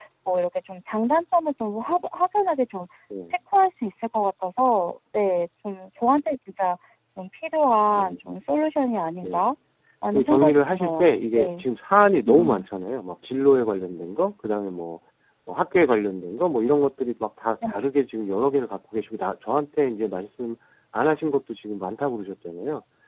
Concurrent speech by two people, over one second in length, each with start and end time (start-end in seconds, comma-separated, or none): 10.1-11.7